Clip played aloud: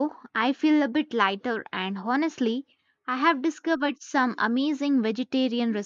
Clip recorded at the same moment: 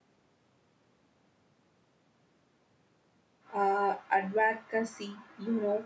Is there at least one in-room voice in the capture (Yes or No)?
Yes